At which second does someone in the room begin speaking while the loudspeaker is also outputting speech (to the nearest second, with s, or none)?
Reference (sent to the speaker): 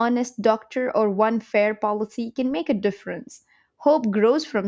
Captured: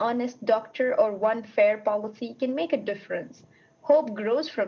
none